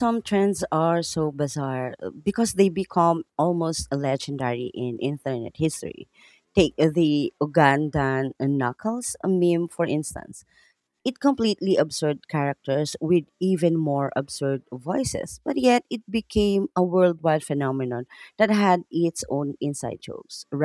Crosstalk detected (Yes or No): No